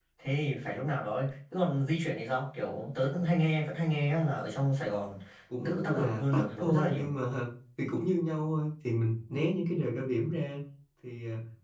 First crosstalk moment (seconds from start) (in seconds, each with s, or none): 5.6 s